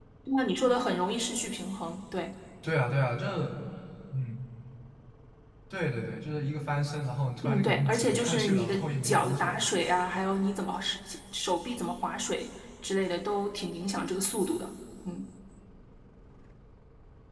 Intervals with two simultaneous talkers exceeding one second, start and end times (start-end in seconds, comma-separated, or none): 7.4-9.7